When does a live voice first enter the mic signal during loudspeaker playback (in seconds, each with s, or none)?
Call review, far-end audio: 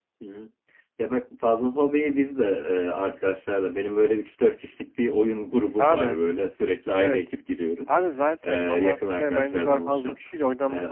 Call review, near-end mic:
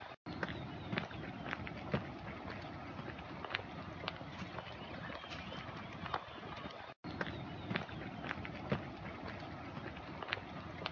none